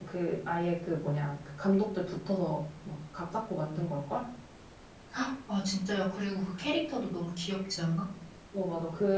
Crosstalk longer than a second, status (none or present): none